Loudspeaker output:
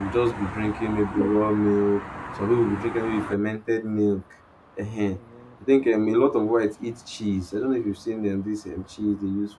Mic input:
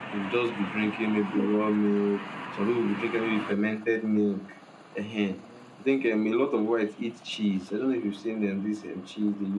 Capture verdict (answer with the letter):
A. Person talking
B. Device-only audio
B